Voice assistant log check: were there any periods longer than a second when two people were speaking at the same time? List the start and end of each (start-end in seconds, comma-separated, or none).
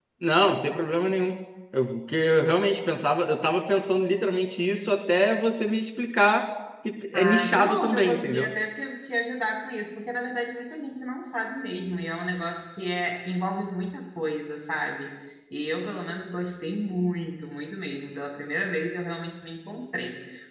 7.2-8.5